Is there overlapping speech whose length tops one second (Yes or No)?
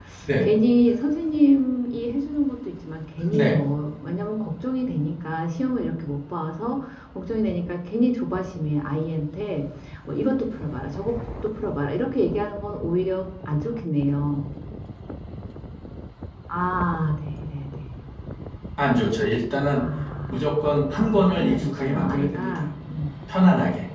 Yes